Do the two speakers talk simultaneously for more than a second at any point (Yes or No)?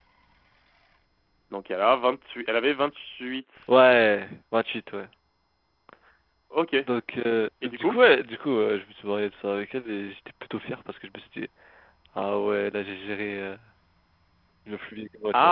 No